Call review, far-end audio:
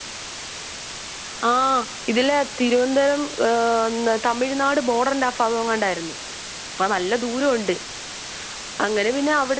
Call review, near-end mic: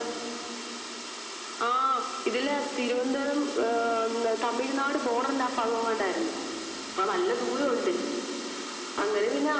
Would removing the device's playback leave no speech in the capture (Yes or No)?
Yes